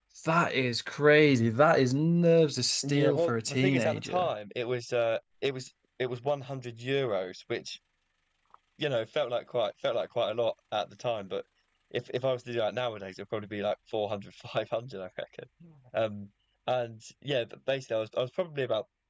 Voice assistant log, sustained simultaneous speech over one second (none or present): present